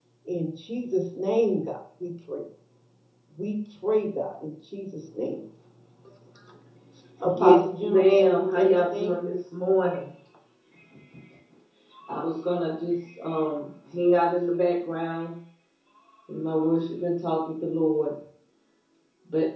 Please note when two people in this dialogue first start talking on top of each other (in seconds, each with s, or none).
7.4 s